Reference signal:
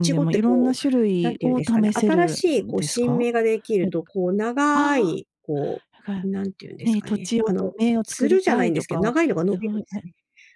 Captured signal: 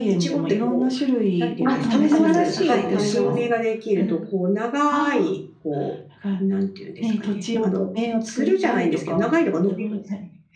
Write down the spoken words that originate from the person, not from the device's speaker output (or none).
あ、試せます。あ、はい、試せます。うん。